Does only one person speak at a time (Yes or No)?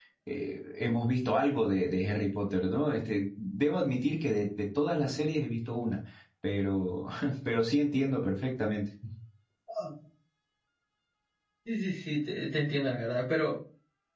Yes